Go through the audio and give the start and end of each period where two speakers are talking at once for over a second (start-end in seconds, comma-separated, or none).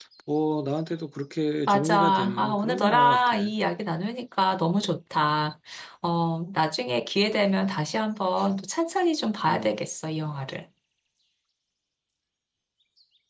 1.7-3.4